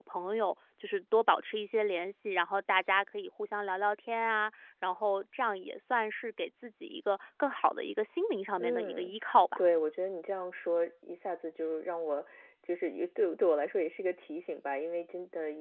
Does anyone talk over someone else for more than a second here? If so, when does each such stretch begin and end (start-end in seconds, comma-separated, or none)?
none